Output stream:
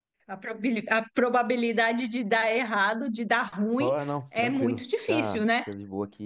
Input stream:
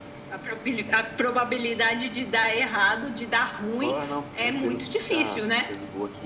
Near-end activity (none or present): none